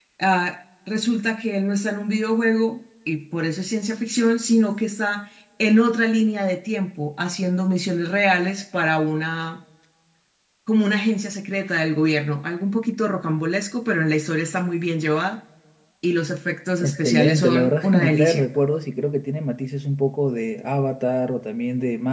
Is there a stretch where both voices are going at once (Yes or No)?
Yes